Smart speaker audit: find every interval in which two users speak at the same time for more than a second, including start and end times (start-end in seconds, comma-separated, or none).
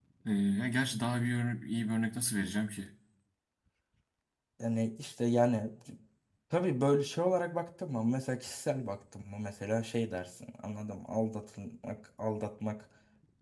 none